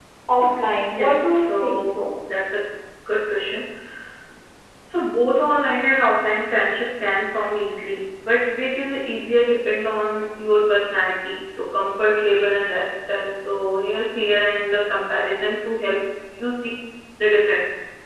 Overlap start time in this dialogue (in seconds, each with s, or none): 0.9 s